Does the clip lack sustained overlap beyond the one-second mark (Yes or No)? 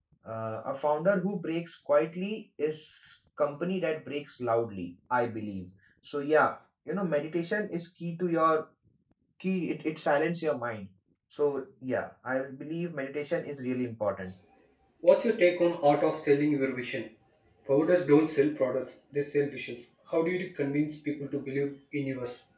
Yes